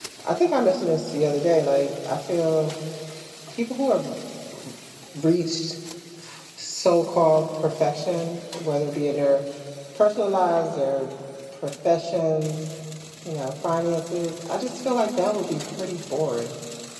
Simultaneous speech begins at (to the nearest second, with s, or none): none